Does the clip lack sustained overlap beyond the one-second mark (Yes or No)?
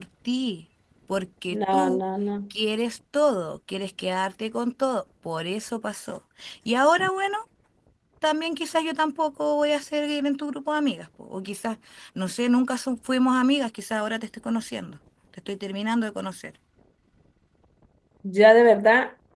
Yes